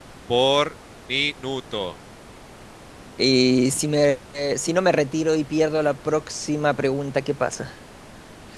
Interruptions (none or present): none